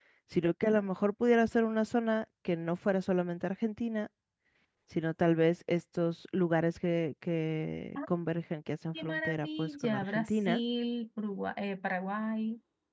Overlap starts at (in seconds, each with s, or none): 9.0 s